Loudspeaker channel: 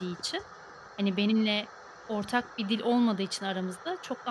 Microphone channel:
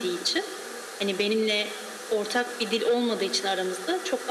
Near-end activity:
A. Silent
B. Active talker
A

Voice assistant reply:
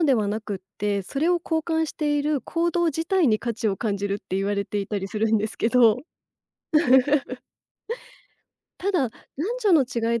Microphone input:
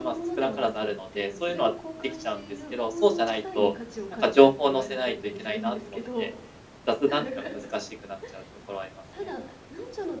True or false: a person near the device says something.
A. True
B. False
A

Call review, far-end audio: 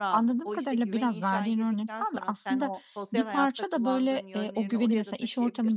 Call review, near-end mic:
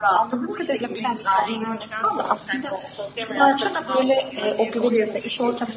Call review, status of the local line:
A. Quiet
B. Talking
A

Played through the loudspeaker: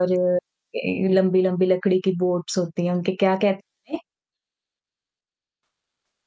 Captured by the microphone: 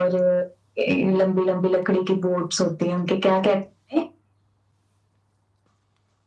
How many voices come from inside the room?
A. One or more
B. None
B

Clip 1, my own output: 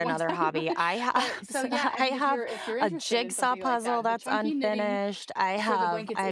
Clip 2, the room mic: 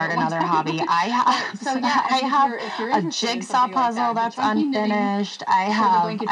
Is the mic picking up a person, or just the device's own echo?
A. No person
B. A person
A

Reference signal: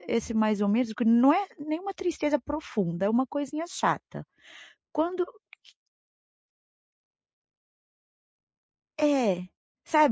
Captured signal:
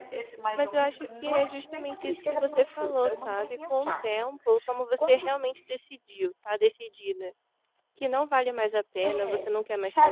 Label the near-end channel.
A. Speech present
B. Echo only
A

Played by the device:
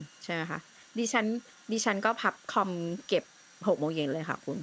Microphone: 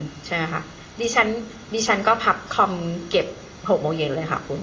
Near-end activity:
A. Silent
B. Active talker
A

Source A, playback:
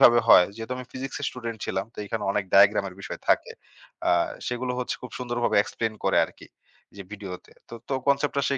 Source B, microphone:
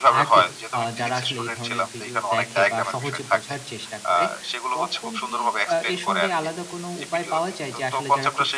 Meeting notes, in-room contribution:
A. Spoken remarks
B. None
A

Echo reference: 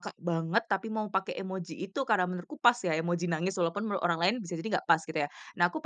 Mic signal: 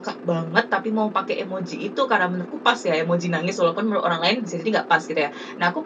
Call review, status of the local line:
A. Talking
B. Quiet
B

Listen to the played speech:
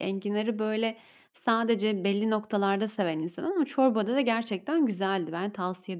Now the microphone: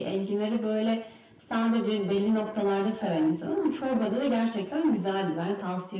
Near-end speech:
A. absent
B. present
B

